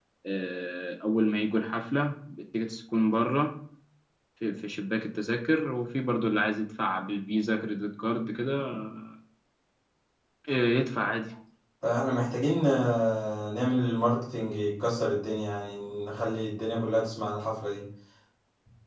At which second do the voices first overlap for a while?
none

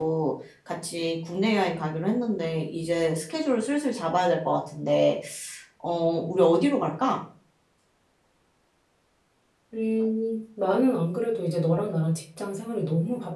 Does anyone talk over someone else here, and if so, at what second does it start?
none

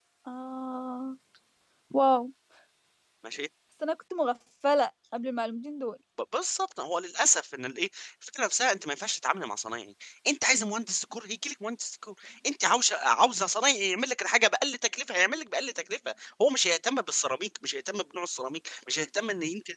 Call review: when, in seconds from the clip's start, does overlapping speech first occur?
none

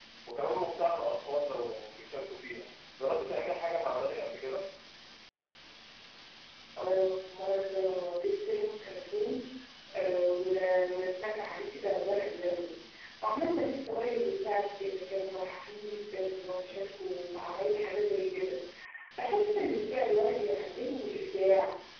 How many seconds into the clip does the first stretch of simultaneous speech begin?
none

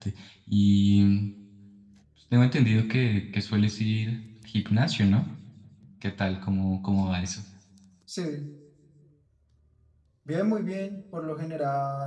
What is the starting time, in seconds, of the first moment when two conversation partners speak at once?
none

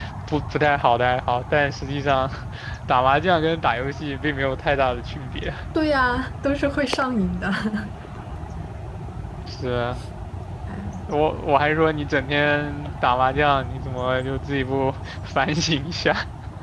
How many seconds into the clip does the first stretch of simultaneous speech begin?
none

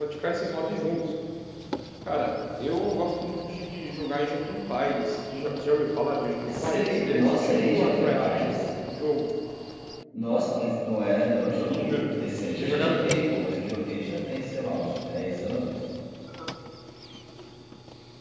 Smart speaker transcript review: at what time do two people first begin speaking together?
6 s

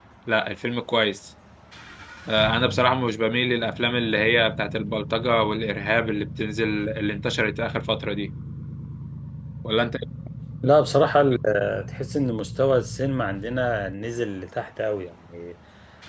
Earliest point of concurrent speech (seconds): none

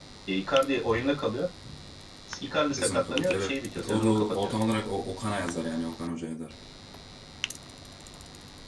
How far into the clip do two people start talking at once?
3 s

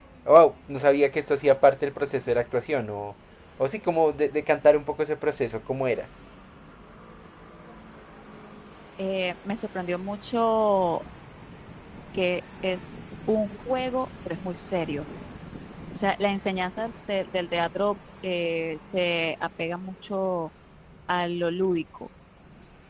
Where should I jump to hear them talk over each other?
none

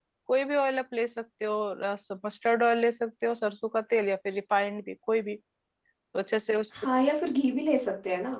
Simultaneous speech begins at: none

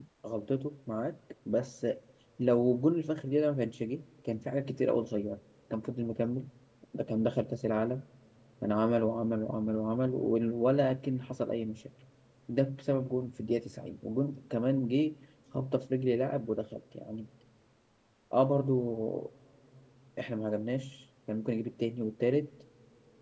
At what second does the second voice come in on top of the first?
none

